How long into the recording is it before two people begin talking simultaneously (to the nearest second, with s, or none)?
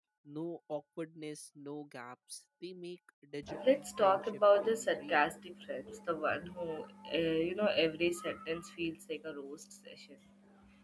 3 s